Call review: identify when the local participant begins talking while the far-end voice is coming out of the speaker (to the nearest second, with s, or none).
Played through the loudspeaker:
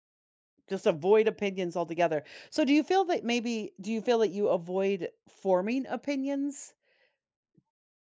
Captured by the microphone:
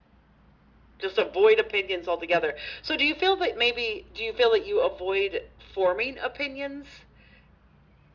none